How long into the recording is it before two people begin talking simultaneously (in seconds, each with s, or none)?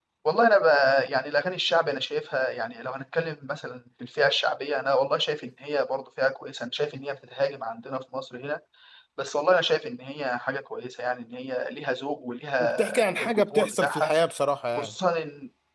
12.6 s